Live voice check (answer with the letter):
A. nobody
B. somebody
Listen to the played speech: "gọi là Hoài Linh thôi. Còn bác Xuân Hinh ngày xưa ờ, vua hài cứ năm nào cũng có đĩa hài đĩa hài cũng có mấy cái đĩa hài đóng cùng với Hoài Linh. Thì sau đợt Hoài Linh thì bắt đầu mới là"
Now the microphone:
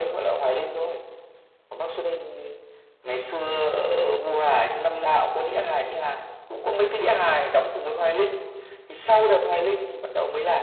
A